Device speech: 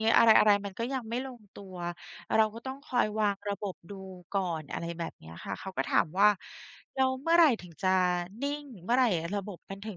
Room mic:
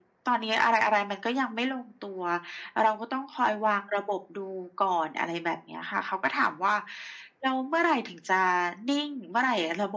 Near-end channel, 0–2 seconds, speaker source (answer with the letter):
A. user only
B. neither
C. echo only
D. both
C